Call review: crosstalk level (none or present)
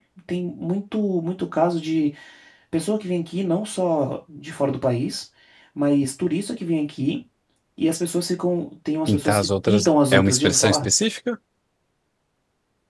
present